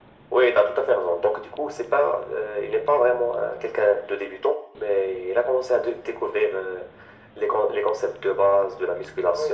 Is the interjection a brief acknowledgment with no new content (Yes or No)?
No